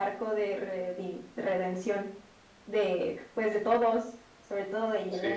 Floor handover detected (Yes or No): Yes